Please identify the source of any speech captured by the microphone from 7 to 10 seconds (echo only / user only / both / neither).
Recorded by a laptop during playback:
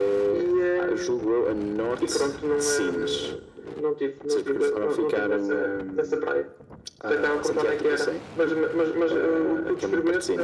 echo only